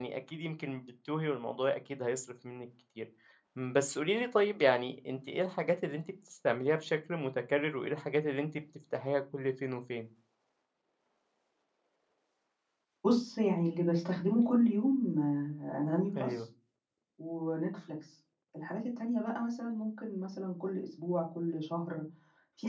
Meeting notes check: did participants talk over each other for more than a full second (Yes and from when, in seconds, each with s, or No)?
No